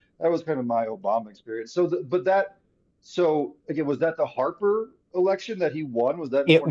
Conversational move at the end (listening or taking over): taking over